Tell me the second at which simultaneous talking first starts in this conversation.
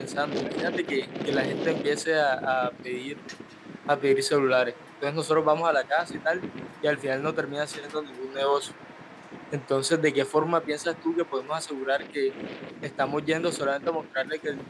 none

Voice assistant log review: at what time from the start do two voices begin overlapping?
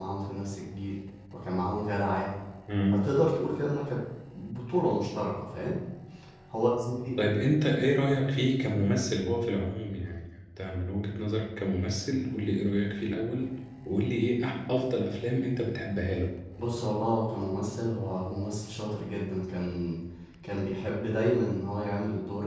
none

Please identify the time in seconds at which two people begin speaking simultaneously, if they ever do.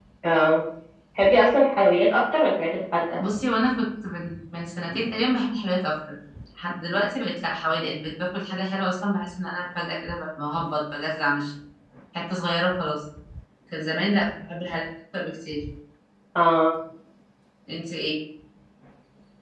none

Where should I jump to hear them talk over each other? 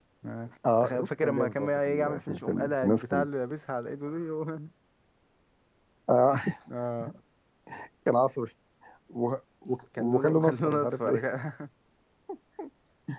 0.8 s

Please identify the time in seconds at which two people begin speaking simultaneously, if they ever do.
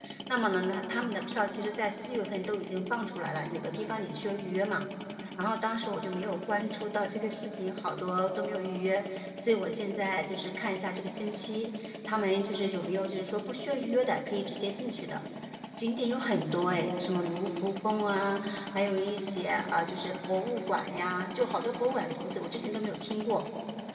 none

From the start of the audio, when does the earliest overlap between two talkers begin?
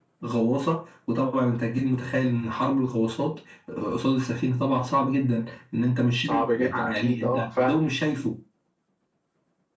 6.2 s

